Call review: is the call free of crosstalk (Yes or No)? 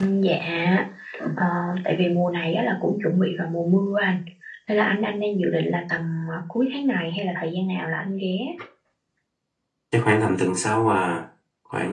Yes